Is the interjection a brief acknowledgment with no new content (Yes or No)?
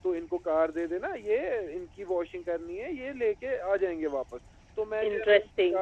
Yes